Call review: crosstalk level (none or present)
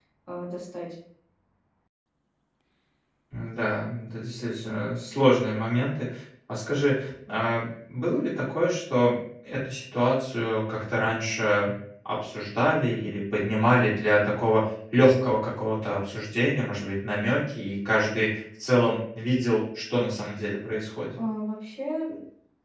none